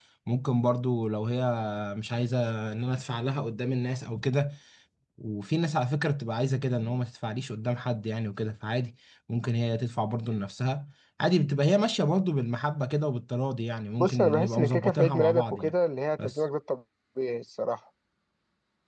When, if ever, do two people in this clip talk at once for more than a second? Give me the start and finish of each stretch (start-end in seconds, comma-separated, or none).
14.0-15.7